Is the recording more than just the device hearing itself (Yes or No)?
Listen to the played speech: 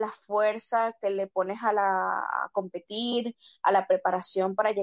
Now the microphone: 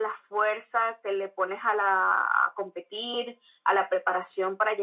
No